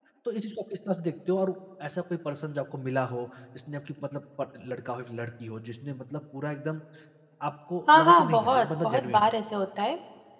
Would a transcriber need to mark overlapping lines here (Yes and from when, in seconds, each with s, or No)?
Yes, from 7.9 s